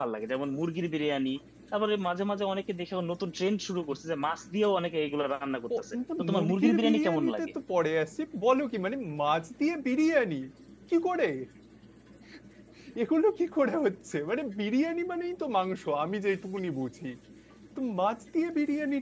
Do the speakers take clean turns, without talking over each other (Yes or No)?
No